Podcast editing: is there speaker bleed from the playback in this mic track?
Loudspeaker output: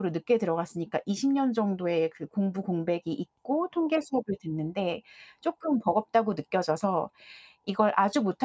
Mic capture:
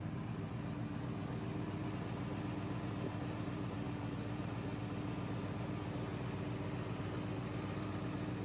No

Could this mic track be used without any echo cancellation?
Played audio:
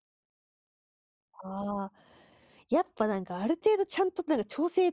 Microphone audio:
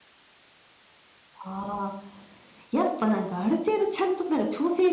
No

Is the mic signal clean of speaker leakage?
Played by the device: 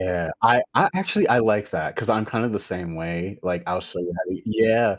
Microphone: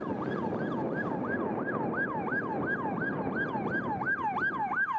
Yes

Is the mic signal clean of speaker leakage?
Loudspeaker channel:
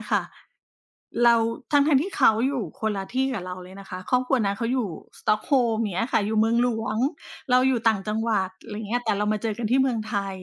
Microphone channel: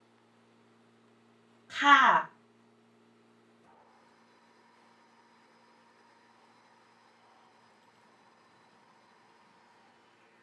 Yes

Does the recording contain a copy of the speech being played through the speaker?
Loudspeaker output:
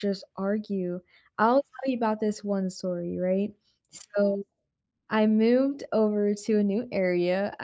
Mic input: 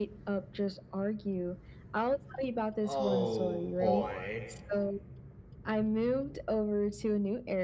Yes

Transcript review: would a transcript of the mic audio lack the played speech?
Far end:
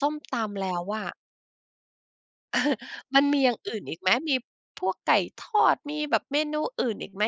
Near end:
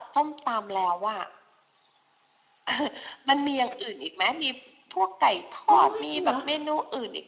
No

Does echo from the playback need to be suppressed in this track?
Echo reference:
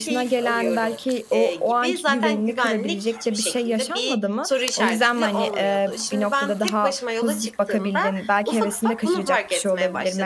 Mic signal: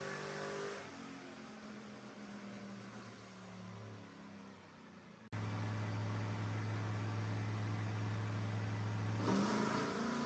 No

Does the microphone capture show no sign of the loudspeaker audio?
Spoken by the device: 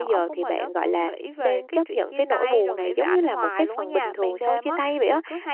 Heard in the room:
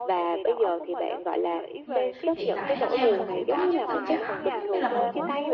No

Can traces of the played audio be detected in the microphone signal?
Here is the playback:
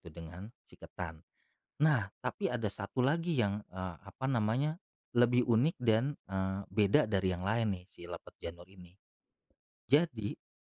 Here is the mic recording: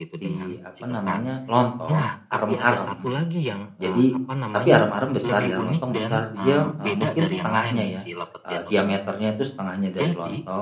Yes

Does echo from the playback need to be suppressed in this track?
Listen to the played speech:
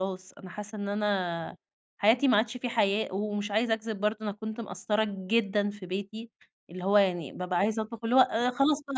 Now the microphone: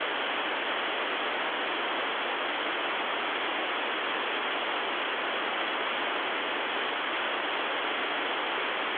No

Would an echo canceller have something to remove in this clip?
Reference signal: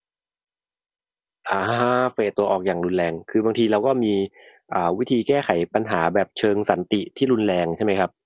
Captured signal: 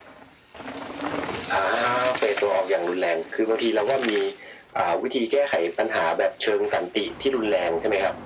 Yes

